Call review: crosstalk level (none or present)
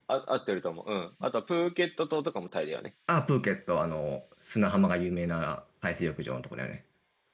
none